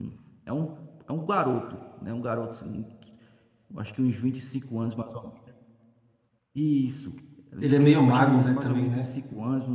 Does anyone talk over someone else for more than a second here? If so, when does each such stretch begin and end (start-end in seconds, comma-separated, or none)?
7.6-9.0